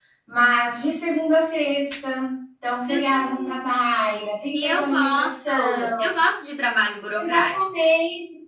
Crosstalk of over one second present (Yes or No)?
Yes